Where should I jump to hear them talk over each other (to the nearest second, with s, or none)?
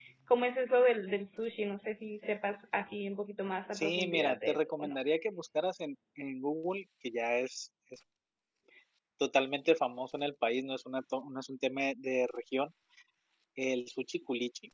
4 s